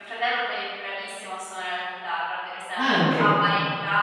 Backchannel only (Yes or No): Yes